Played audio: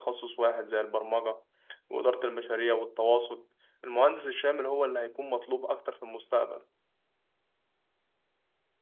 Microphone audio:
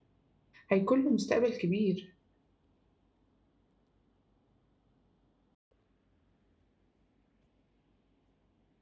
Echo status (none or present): none